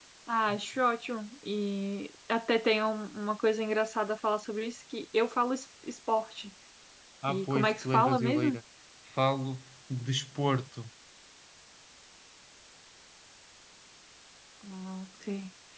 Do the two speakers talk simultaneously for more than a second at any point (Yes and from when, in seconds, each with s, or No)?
Yes, from 7.3 s